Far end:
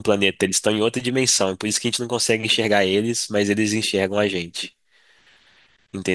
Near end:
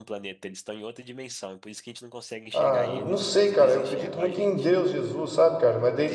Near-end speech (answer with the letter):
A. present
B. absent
A